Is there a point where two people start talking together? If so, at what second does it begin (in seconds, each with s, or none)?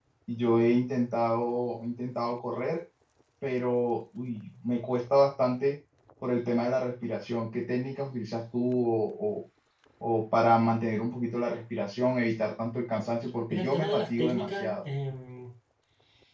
13.5 s